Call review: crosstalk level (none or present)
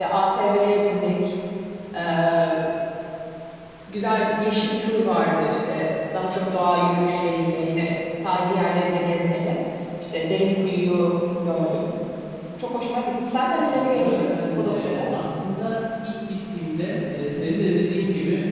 present